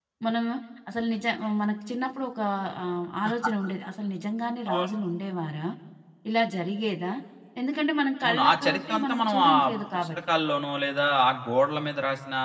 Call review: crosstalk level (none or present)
present